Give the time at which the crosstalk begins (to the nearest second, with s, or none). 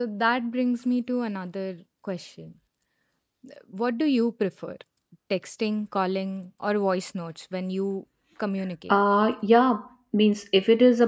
none